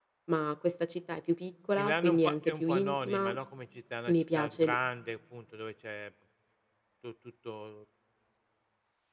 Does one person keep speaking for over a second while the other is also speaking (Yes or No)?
Yes